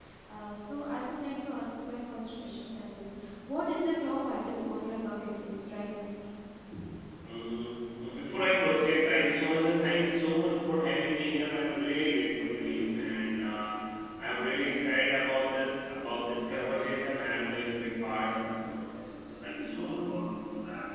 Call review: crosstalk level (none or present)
none